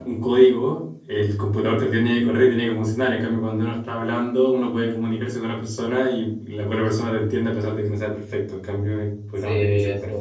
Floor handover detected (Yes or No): Yes